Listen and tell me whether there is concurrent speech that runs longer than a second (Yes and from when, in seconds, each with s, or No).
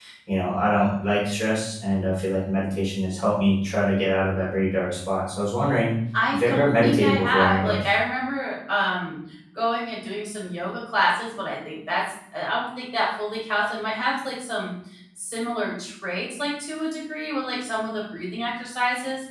Yes, from 6.3 s